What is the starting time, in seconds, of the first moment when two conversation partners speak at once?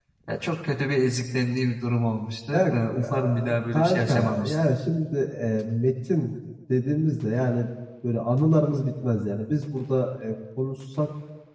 3 s

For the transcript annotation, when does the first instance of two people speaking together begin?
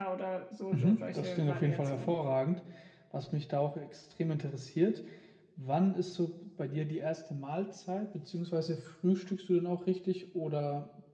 1 s

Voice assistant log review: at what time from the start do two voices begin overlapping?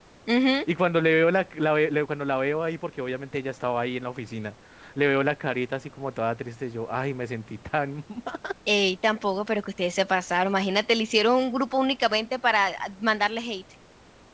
none

